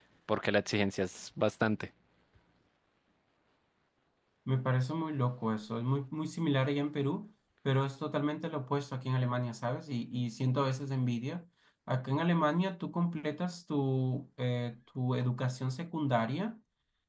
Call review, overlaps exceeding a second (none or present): none